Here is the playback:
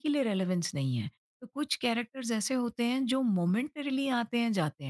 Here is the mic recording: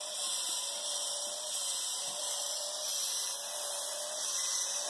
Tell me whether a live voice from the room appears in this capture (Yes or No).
No